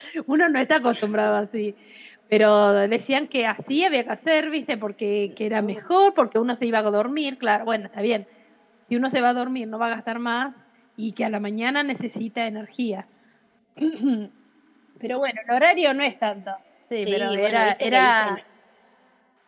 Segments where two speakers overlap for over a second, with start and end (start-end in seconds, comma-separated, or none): 17.0-18.4